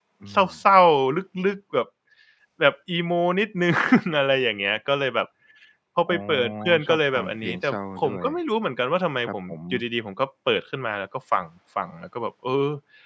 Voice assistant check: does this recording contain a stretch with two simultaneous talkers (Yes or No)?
Yes